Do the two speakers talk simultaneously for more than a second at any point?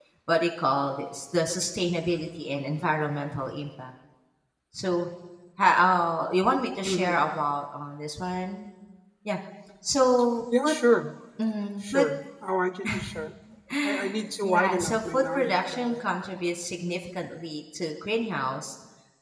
Yes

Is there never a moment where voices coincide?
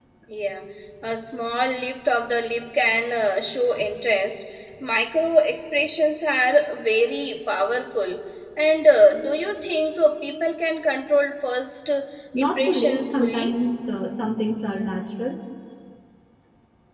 No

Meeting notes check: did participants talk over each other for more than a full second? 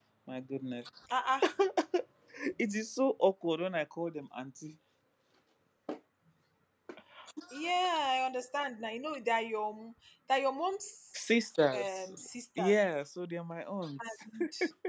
No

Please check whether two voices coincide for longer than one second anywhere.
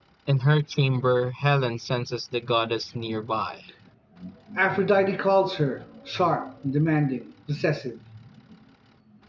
No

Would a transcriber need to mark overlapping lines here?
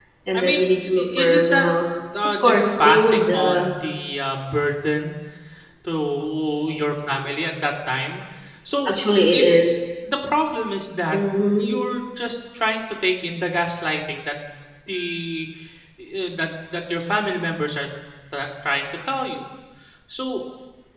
Yes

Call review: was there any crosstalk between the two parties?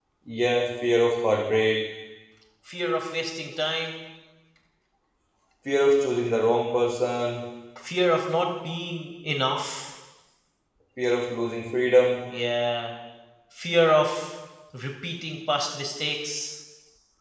No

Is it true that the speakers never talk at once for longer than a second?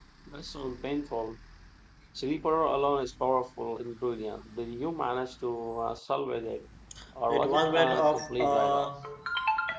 No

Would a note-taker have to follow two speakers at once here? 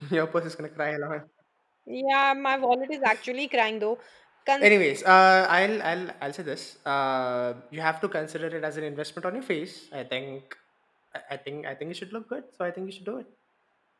No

